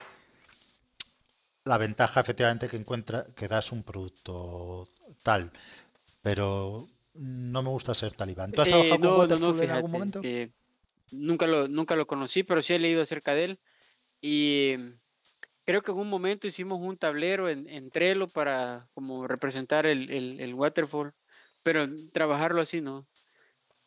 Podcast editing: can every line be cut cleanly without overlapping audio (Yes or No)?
No